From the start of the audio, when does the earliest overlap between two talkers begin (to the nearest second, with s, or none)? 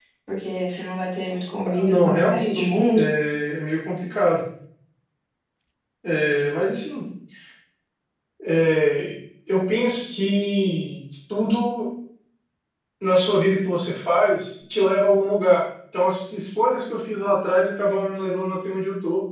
2 s